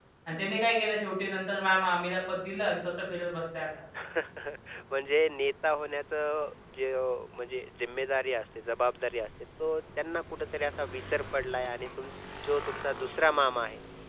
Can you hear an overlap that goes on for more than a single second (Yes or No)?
No